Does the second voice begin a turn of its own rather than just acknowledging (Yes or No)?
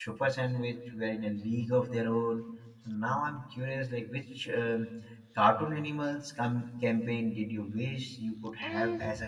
Yes